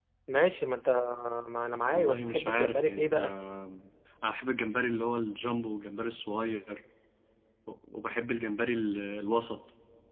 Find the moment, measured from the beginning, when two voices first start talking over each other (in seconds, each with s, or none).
1.9 s